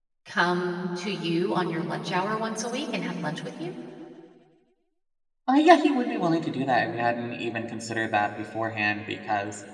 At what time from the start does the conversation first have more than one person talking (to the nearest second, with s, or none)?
none